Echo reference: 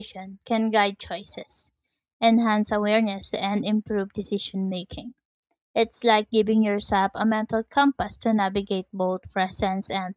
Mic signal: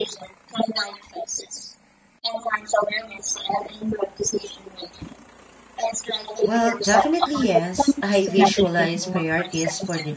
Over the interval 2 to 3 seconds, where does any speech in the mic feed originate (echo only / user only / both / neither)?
echo only